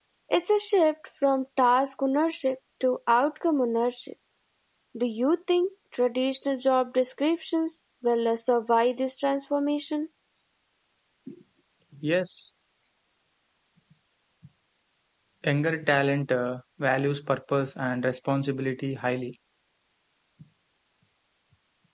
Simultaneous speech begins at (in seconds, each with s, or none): none